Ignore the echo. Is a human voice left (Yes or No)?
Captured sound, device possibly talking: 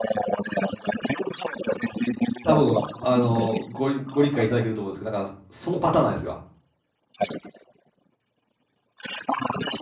Yes